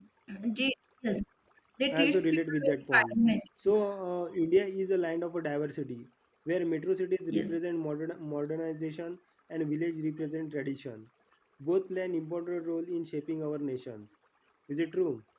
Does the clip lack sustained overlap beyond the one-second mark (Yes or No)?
No